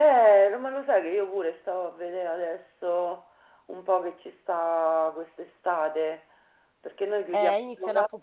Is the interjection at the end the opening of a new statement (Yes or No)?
Yes